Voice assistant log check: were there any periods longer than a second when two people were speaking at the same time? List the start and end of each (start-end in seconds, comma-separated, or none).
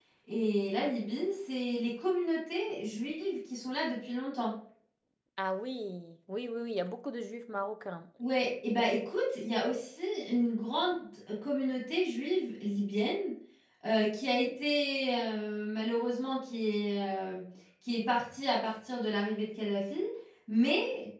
none